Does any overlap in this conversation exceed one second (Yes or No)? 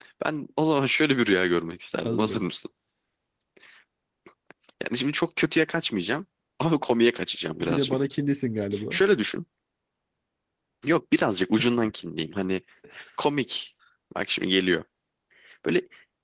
No